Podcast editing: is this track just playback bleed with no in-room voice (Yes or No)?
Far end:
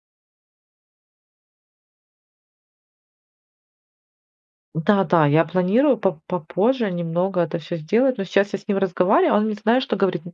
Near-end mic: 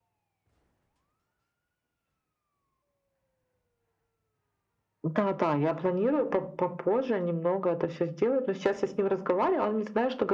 Yes